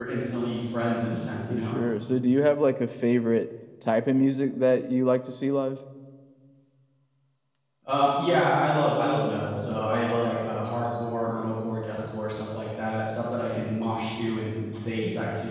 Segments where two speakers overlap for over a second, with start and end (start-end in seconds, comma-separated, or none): none